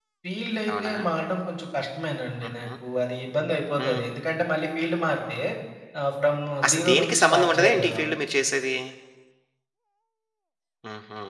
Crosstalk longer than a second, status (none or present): present